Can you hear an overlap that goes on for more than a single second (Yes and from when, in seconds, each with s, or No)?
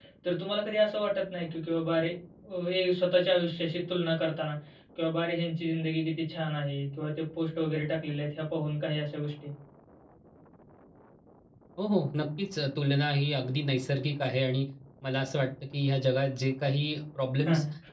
No